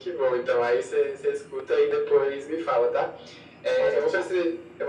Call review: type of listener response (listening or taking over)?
listening